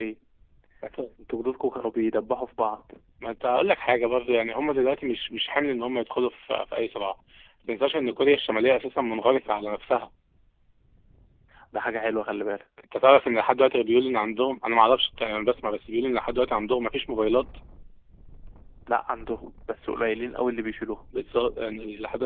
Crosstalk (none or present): none